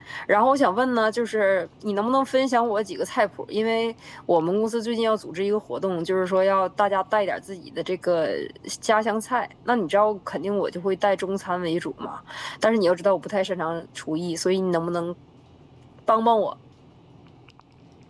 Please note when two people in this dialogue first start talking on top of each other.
none

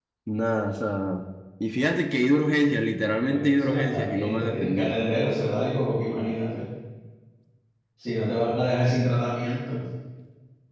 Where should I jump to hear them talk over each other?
3.2 s

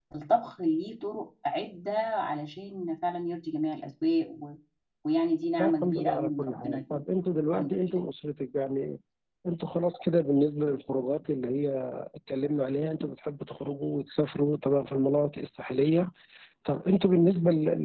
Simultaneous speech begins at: 5.6 s

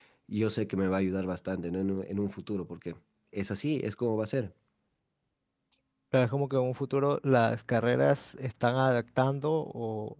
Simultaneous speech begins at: none

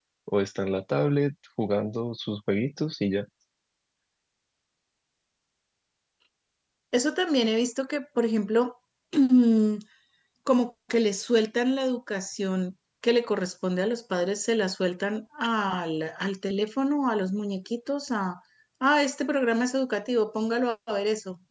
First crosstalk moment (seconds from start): none

